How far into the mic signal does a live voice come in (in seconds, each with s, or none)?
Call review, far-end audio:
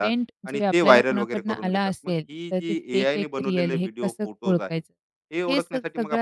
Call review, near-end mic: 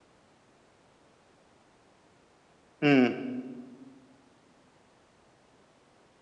2.8 s